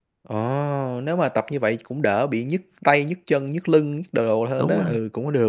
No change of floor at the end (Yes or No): No